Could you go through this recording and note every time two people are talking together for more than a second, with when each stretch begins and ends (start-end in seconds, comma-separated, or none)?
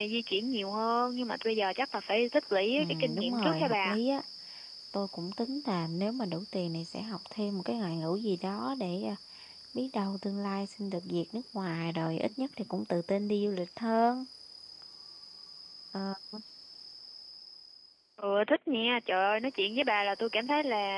2.8-4.0